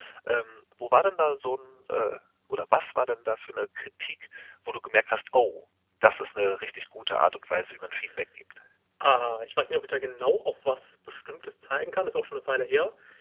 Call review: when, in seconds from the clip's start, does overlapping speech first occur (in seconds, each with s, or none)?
none